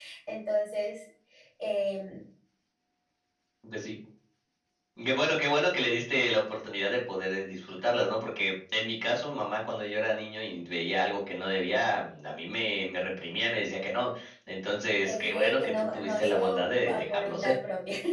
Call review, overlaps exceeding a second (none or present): present